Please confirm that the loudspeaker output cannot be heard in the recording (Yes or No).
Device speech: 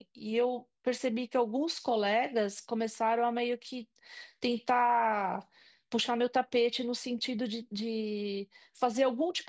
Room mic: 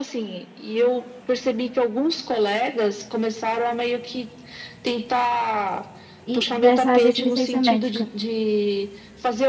No